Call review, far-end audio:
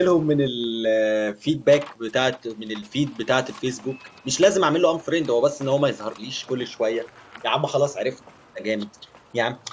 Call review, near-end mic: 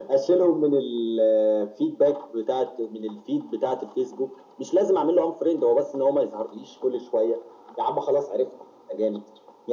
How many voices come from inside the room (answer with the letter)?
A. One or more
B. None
B